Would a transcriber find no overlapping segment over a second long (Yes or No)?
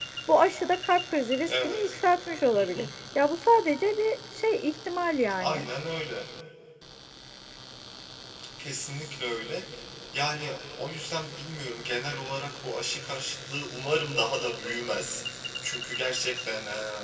Yes